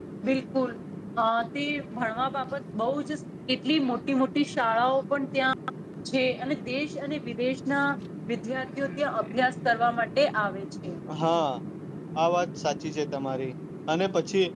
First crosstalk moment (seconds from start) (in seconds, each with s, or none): none